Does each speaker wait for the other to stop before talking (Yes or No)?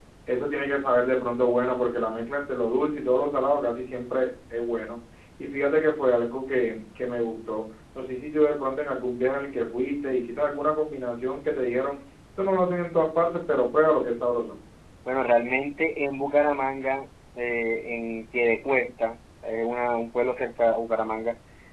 Yes